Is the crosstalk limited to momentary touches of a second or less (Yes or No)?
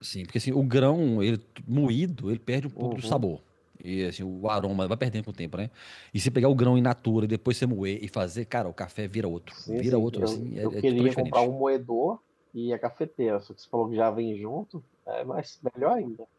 No